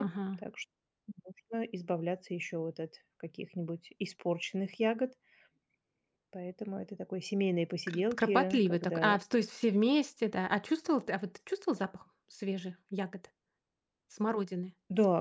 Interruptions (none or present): present